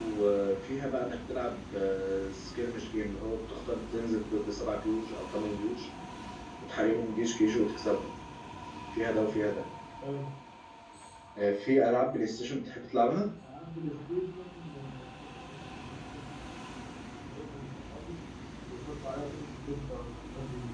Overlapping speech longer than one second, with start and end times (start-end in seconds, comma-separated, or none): none